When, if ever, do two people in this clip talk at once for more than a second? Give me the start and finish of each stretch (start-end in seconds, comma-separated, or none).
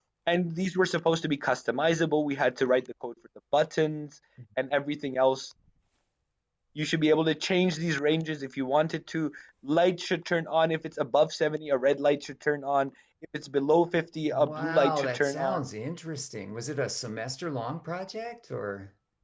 14.2-15.6